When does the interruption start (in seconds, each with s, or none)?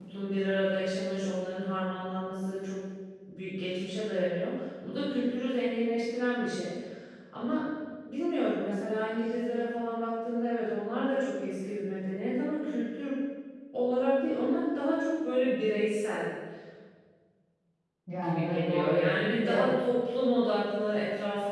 18.2 s